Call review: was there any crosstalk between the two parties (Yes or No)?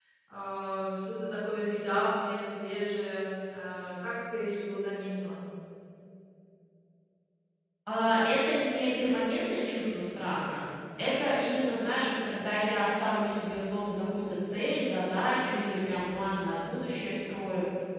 No